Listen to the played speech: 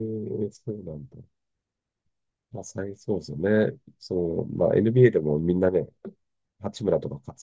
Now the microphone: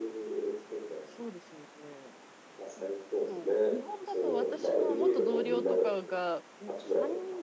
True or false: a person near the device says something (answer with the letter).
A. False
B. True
B